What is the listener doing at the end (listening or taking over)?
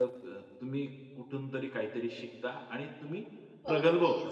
taking over